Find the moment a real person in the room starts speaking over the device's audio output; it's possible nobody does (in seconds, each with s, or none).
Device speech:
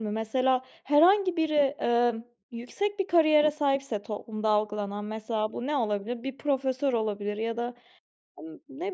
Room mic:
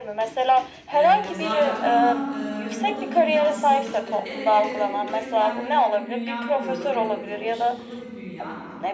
0.9 s